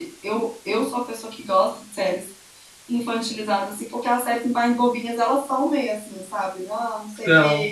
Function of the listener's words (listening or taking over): listening